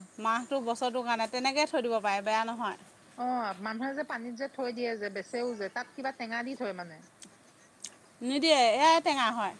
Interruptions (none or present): none